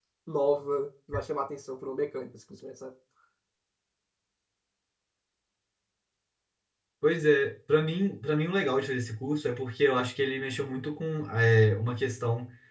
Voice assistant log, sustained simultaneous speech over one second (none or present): none